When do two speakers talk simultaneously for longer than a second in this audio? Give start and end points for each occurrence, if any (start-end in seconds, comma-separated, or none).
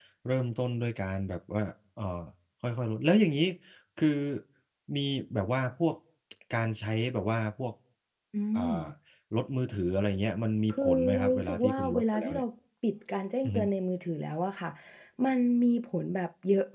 10.7-12.4